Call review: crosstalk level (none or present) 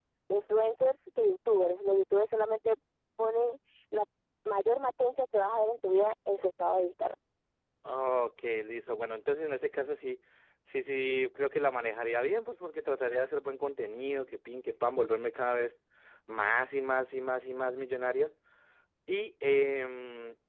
none